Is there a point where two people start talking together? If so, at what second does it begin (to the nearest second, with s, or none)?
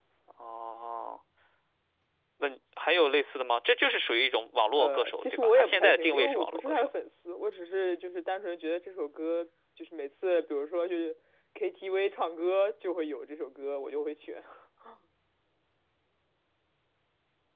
5 s